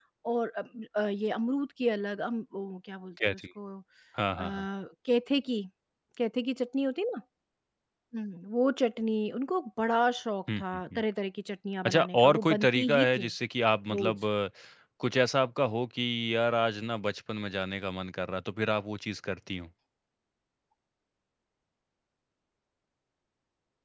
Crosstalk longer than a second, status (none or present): present